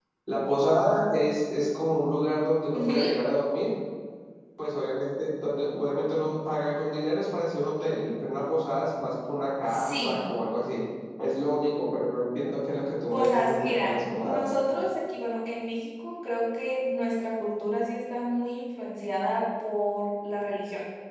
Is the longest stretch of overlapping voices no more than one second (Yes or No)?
No